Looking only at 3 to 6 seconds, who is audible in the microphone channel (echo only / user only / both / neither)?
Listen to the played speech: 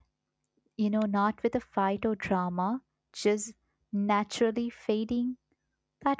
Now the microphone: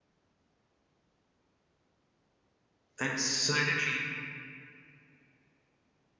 user only